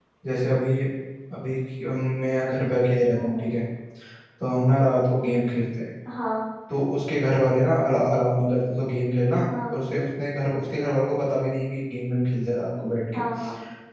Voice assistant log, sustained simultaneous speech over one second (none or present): none